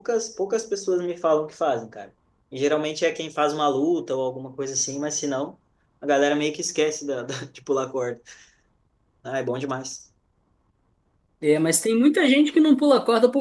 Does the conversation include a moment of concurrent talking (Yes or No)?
No